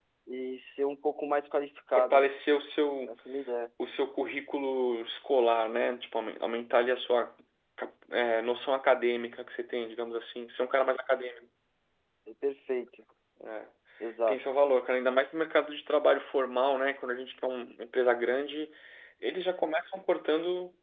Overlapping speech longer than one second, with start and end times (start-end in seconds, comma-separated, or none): none